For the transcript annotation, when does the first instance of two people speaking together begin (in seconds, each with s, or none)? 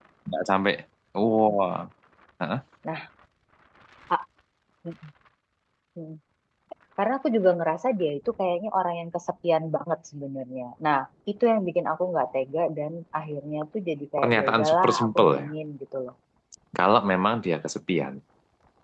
14.2 s